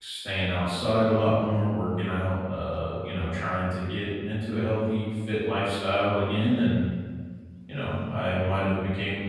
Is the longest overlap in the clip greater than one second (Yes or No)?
No